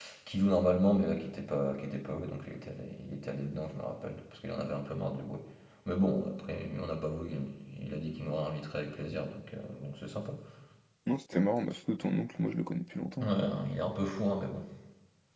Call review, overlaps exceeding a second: none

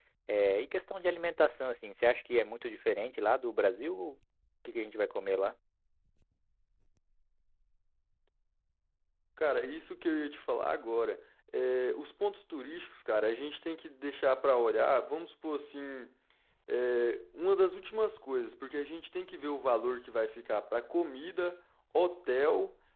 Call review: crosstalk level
none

